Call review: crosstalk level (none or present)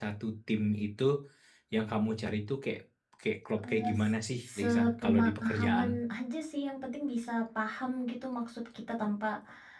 present